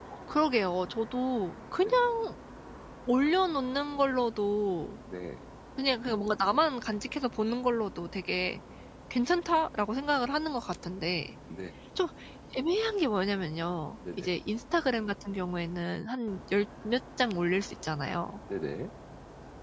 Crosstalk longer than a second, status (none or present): none